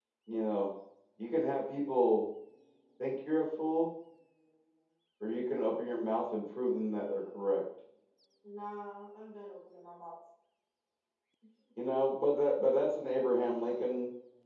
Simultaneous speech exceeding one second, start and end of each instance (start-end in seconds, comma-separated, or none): none